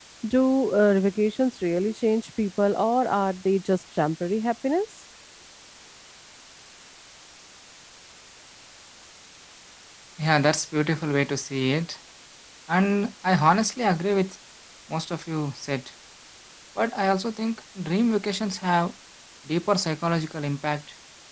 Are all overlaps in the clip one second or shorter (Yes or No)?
Yes